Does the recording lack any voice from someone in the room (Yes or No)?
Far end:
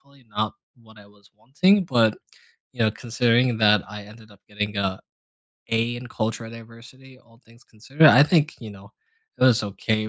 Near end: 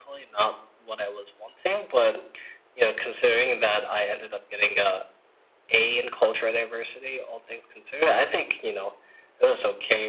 Yes